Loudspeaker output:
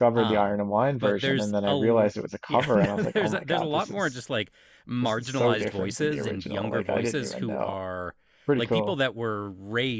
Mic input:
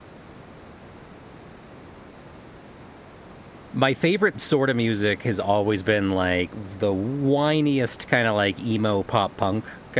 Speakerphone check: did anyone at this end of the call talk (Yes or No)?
Yes